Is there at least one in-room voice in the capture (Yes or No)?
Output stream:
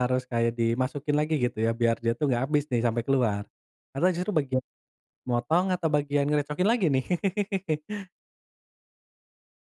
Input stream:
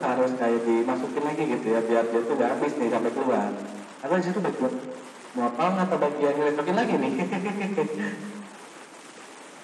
No